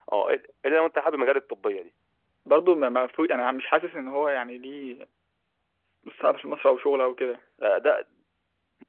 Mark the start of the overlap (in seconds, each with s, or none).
none